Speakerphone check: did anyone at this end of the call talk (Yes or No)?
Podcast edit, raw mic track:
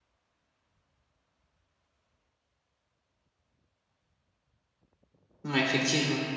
Yes